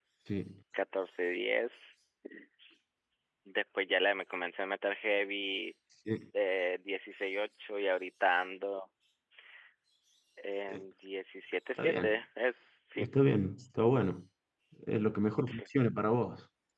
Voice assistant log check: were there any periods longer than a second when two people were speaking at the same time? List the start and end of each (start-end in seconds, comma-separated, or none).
none